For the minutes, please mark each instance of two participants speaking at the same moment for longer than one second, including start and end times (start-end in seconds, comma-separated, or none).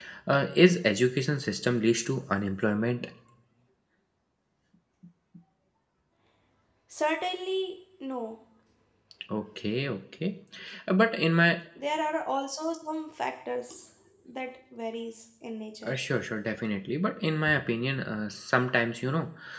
none